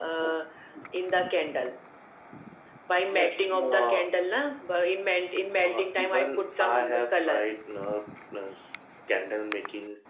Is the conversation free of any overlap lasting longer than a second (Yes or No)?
No